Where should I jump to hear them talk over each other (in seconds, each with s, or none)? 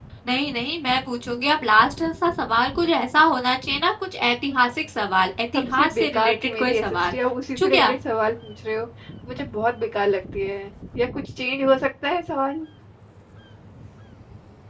5.5 s